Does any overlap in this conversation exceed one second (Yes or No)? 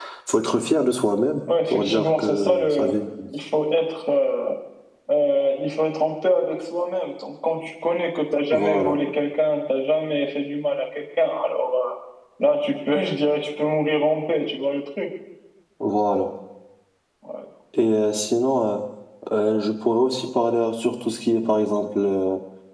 Yes